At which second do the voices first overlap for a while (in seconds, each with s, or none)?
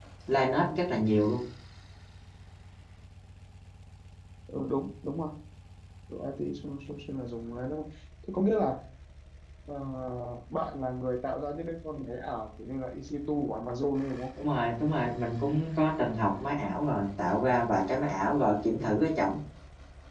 none